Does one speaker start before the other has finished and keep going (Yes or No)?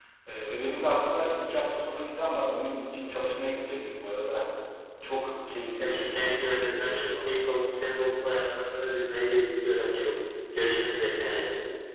Yes